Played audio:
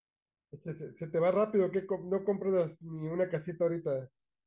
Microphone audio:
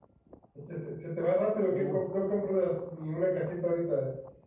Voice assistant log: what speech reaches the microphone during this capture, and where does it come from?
both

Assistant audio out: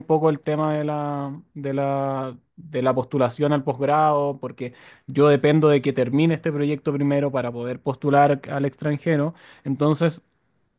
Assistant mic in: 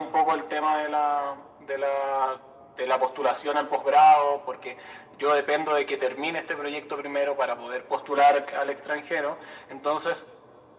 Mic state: echo only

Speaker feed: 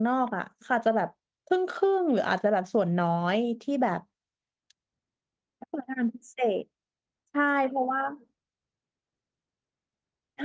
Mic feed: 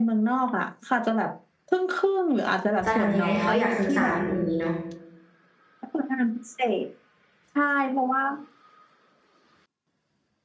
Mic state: both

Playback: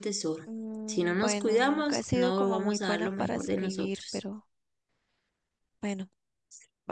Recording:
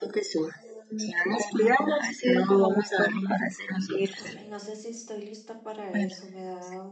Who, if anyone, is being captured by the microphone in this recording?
both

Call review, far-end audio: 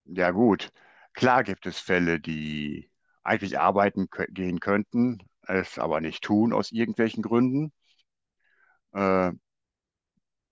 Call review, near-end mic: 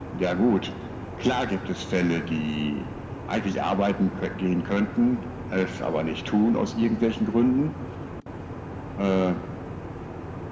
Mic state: echo only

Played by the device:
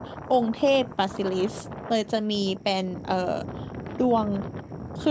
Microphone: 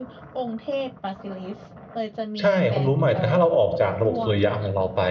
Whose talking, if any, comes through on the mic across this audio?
both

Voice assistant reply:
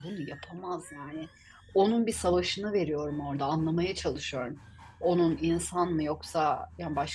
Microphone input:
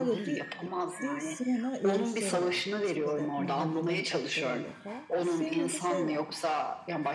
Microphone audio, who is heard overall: both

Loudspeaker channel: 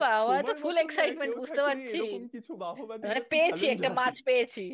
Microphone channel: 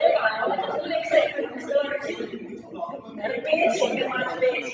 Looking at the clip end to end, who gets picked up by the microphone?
both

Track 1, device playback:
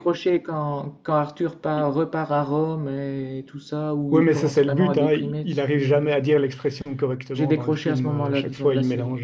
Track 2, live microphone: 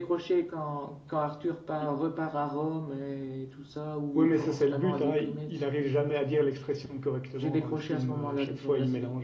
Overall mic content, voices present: echo only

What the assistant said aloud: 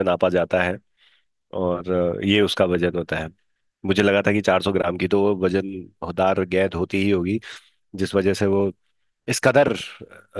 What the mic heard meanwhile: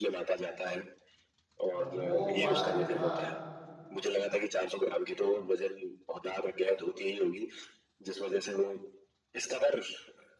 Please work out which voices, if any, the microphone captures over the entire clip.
both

